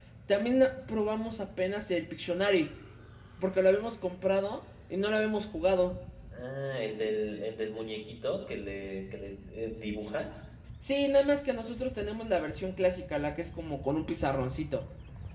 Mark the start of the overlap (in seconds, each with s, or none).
none